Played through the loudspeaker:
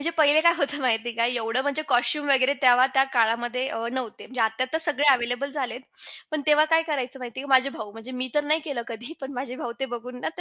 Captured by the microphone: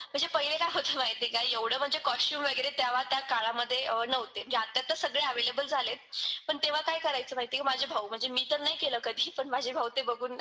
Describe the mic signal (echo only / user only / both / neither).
echo only